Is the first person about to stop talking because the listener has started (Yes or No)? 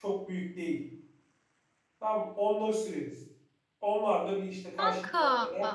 No